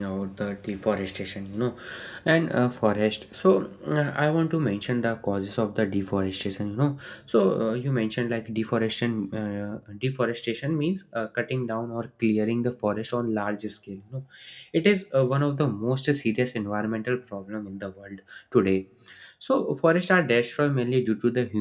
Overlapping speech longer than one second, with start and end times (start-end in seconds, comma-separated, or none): none